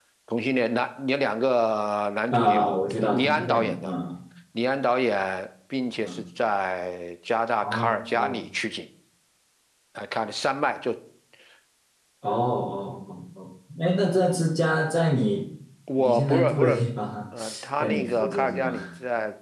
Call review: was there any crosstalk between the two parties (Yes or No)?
Yes